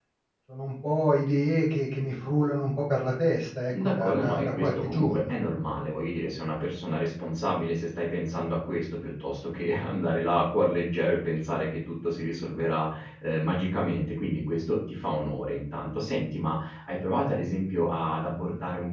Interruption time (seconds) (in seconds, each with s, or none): 3.7 s